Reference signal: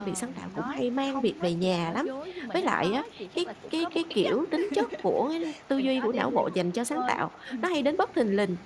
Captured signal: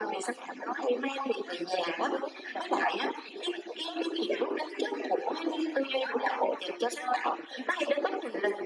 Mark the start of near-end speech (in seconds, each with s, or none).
none